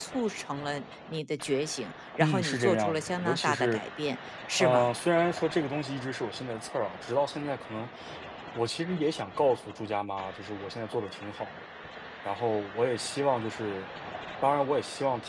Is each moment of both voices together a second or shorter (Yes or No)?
No